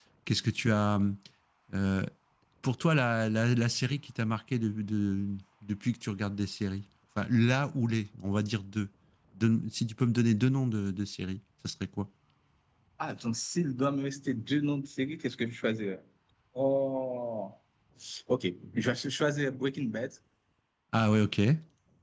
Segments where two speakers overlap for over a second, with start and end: none

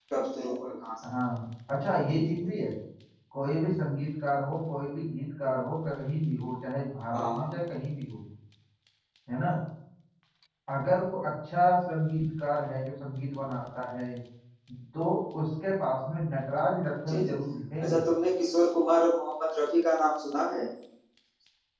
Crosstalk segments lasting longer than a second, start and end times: none

